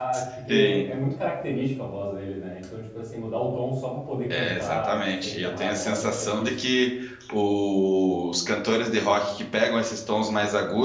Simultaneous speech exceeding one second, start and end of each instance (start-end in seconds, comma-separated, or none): 4.3-6.6